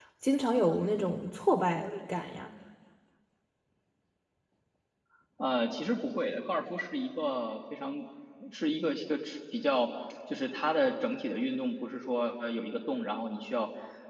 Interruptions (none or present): none